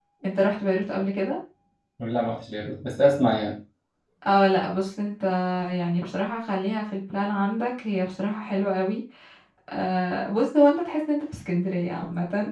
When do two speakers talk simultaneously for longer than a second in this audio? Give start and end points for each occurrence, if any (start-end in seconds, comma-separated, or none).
none